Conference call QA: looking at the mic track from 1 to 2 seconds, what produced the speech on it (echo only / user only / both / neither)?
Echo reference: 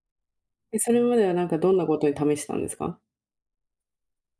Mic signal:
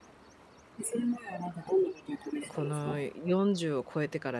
echo only